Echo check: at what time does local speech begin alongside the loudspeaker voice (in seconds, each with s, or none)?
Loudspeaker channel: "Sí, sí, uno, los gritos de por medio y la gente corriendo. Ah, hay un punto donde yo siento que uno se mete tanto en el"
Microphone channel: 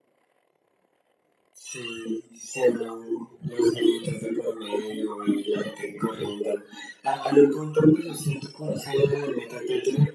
none